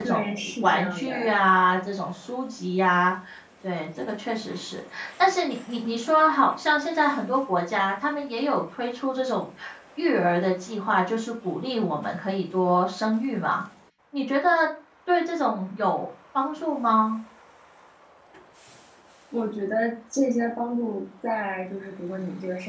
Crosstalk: present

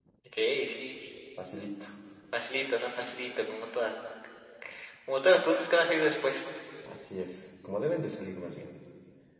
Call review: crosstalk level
none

